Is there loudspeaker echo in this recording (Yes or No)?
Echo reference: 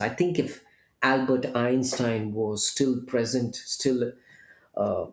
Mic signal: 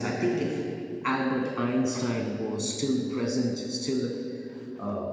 Yes